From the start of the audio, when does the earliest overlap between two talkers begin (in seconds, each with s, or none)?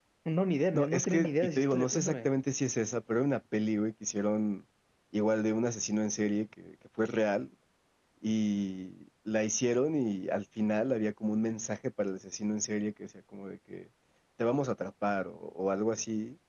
0.7 s